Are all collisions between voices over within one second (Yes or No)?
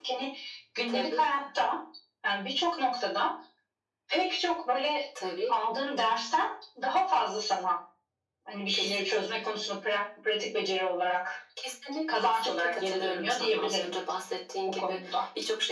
No